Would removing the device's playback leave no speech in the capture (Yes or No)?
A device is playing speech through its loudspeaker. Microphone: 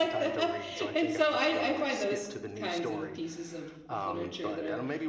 No